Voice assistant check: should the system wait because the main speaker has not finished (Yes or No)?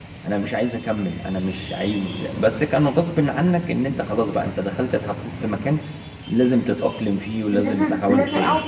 No